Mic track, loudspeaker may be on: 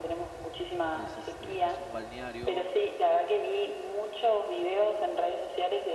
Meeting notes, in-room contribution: present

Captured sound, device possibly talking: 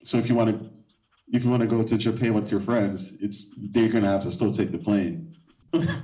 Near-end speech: none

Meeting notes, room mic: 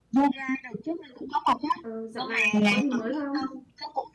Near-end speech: present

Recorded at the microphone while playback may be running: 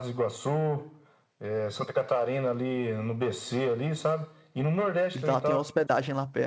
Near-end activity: present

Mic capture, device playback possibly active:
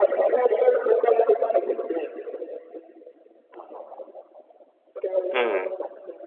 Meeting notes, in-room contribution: present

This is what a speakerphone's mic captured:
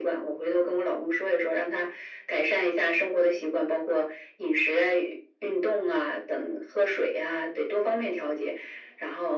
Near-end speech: none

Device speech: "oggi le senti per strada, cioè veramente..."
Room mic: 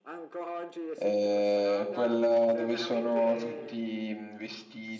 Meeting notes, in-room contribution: present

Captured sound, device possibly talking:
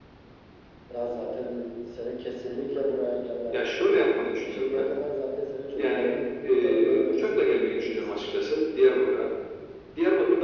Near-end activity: none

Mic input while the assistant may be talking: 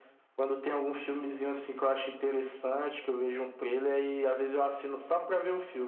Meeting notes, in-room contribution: none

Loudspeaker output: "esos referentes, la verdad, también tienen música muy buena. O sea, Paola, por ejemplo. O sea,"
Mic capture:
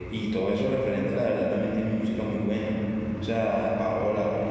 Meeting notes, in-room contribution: none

